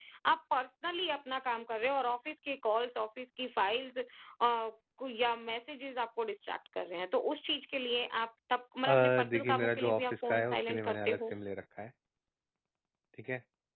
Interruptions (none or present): present